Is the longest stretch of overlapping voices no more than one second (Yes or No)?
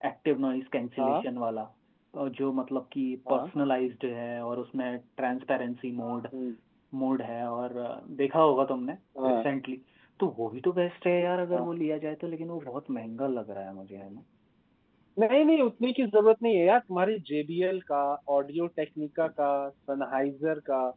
Yes